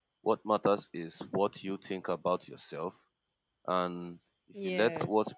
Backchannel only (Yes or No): Yes